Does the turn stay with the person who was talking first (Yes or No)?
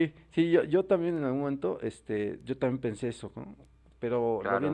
No